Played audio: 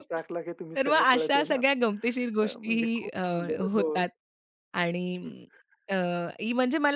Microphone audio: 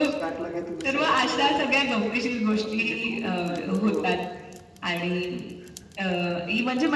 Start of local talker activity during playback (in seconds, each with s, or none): none